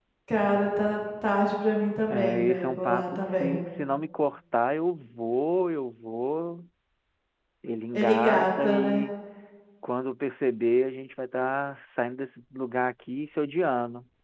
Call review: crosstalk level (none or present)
present